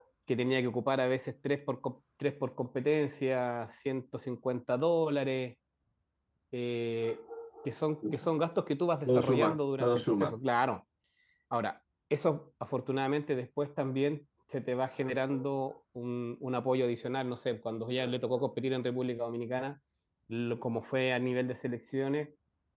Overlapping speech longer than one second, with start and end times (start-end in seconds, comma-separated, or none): 9.1-10.4